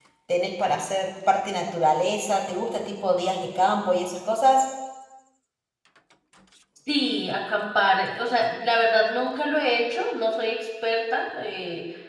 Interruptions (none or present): none